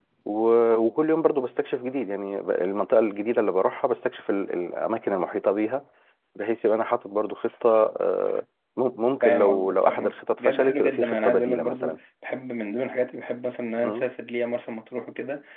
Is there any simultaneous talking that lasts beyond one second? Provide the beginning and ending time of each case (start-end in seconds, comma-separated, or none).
9.2-12.0